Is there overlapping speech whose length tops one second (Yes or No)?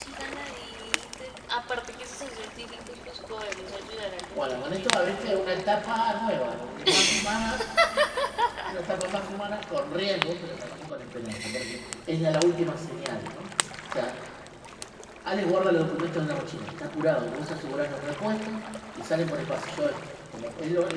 Yes